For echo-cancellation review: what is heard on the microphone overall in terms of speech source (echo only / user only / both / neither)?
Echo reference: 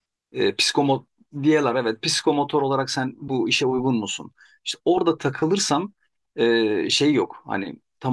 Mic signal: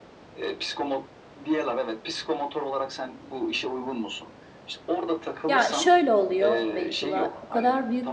both